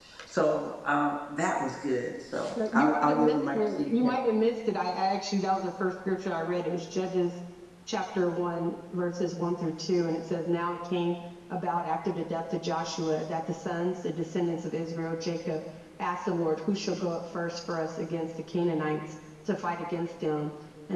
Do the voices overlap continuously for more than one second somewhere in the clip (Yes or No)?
Yes